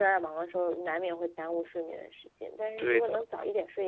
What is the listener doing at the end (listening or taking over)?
listening